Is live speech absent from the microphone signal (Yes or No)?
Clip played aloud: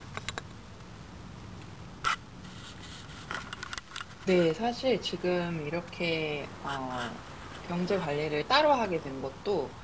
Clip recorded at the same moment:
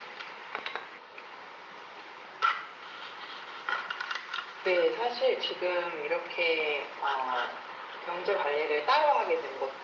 Yes